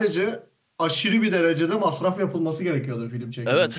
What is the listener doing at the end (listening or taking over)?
taking over